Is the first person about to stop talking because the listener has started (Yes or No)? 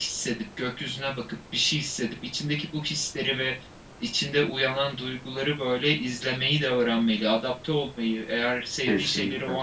No